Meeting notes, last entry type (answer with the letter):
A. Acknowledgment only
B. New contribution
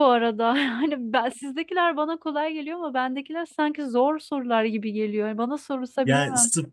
B